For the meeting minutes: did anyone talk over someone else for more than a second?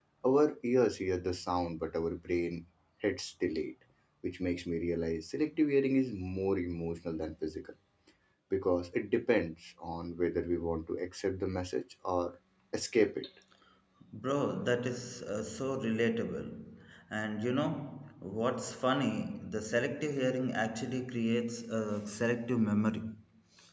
No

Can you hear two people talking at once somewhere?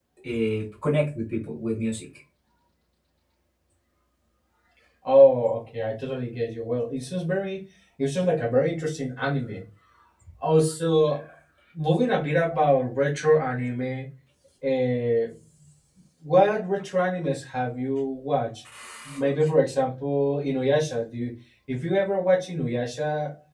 No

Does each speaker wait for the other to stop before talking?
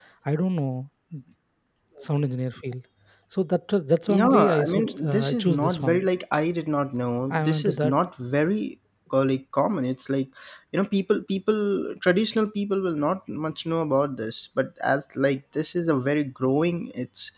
No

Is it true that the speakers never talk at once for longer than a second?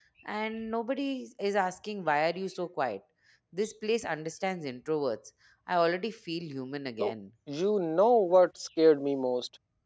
Yes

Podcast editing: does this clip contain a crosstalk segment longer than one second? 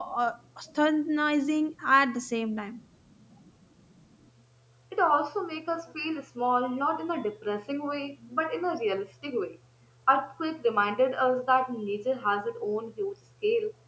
No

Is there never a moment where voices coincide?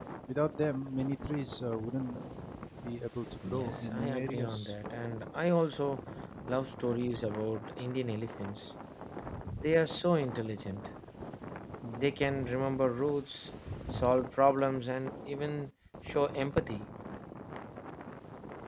No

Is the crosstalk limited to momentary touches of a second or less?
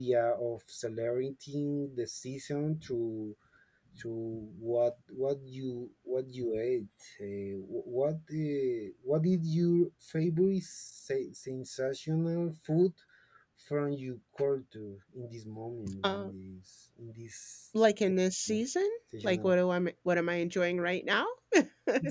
Yes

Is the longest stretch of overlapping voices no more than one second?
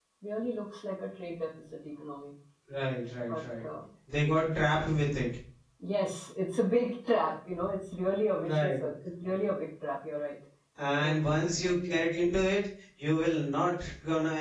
Yes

